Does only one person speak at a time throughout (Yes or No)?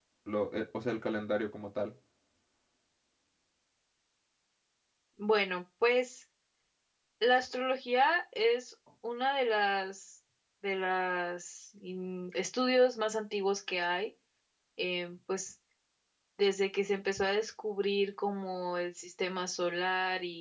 Yes